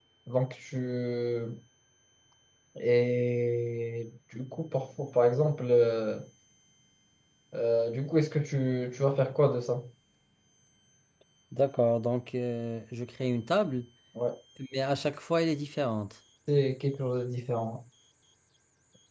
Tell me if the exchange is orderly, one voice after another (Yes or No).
Yes